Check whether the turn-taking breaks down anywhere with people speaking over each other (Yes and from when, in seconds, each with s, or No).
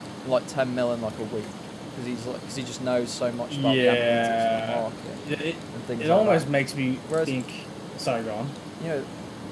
Yes, from 3.5 s